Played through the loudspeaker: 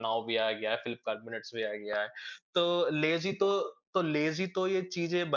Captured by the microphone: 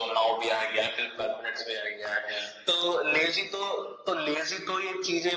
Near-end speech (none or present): none